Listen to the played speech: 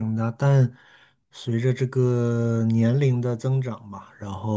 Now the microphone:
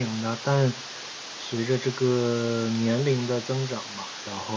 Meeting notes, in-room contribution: none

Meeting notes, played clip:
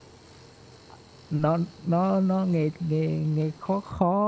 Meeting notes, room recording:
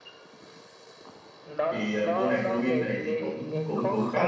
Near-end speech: present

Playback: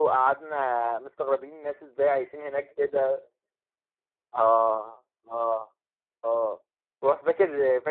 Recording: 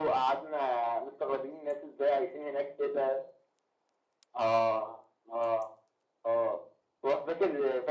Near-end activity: none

